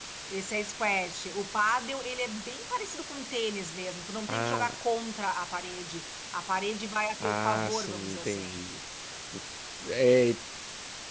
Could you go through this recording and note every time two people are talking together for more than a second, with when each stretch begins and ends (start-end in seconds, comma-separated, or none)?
7.2-8.6